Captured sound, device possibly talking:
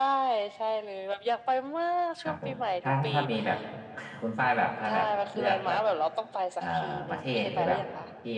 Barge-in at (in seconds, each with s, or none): 2.2 s